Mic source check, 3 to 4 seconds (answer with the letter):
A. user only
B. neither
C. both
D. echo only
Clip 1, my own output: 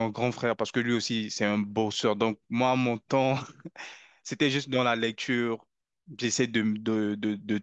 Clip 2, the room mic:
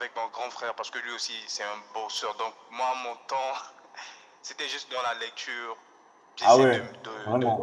D